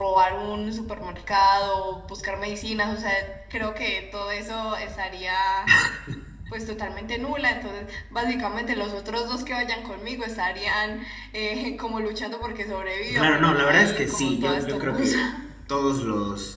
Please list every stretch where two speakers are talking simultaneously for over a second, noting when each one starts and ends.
13.1-15.2

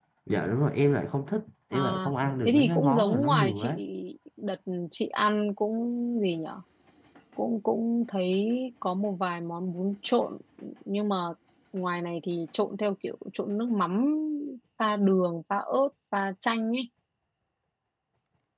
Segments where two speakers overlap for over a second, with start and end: 2.5-3.8

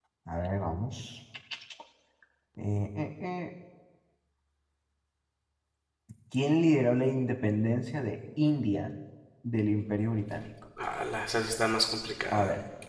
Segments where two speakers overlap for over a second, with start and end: none

